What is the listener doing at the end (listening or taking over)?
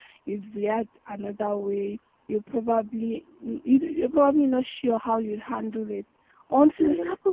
listening